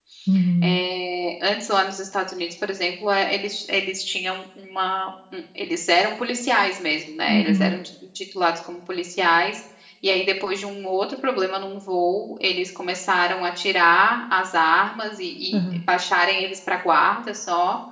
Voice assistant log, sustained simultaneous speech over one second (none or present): none